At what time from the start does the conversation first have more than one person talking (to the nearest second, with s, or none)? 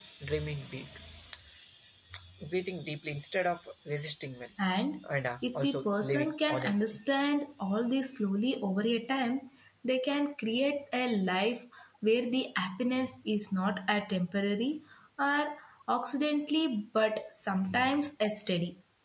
5 s